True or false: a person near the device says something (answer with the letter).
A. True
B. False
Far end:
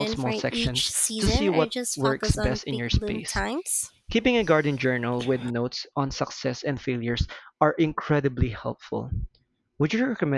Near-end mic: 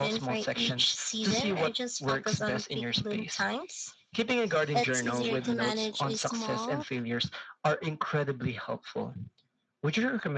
A